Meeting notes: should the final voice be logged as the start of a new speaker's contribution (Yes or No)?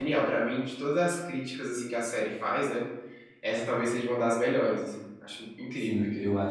Yes